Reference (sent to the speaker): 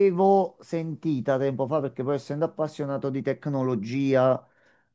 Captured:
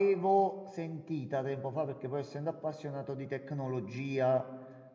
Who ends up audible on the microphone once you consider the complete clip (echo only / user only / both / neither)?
echo only